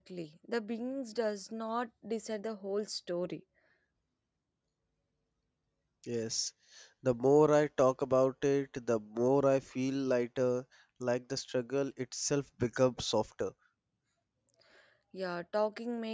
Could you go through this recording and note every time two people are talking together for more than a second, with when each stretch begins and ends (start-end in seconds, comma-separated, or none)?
none